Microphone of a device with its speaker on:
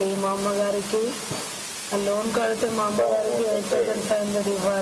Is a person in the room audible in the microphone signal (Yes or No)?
Yes